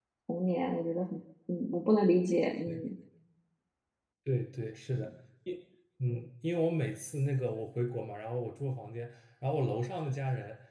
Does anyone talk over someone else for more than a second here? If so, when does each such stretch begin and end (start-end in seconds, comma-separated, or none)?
none